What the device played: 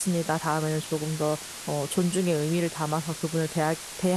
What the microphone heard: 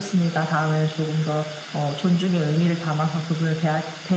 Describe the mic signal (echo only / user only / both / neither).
echo only